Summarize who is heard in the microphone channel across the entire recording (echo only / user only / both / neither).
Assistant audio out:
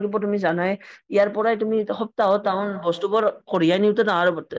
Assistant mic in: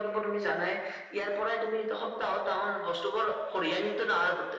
echo only